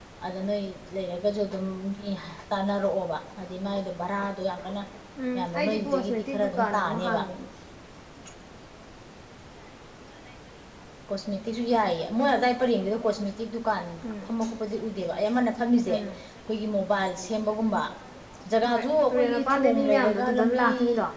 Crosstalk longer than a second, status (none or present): present